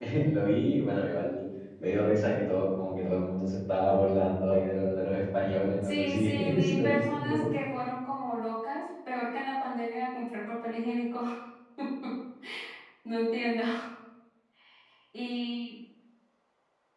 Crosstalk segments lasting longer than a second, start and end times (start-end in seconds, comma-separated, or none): 5.8-7.5